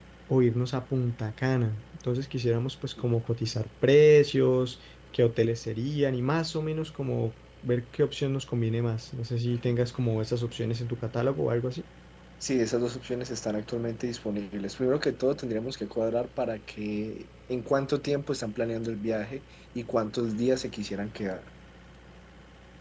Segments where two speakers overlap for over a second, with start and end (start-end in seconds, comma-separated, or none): none